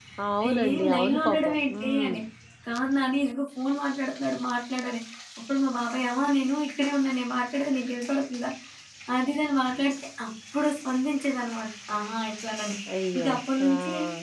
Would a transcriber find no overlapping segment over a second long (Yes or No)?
No